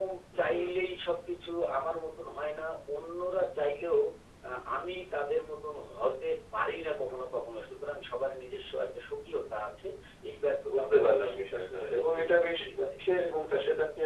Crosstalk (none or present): present